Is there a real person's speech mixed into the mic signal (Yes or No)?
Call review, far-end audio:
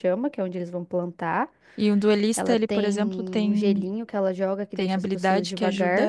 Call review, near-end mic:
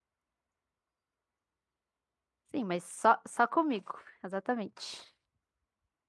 Yes